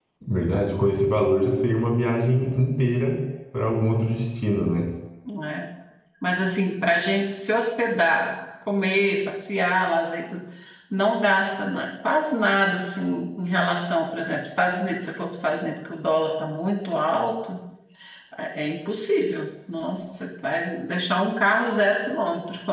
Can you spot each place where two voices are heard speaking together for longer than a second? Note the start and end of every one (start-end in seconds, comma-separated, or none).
none